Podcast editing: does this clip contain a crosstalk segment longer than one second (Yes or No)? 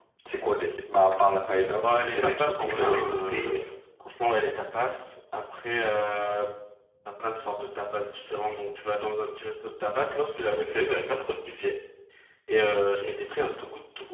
Yes